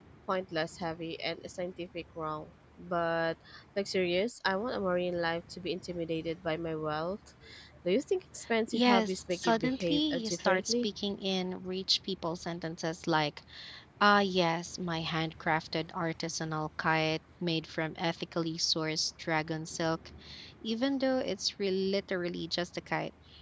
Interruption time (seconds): 9 s

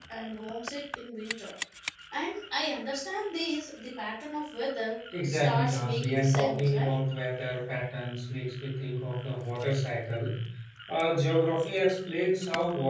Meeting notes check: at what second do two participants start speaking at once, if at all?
5 s

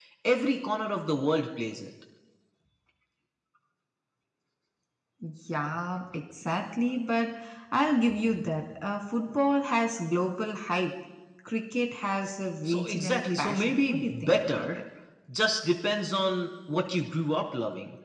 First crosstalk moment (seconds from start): 13 s

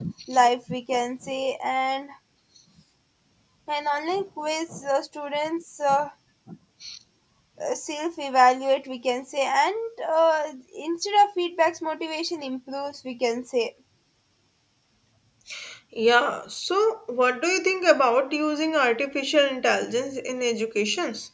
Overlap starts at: none

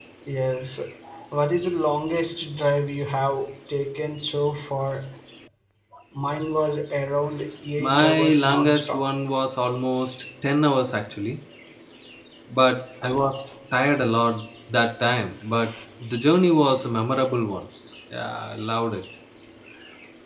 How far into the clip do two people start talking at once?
8 s

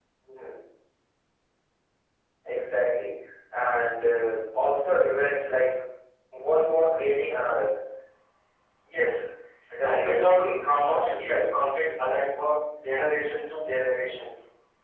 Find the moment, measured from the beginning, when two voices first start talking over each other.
10 s

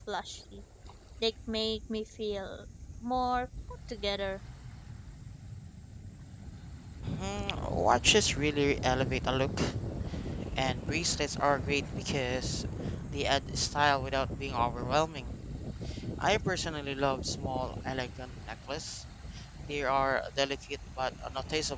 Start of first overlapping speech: none

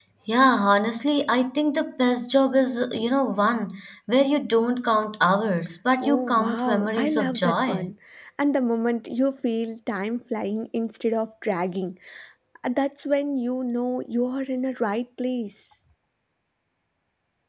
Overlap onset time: 6 s

